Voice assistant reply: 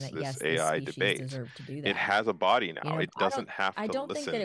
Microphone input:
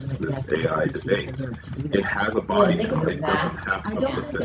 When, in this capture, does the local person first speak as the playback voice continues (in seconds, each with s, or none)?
2.5 s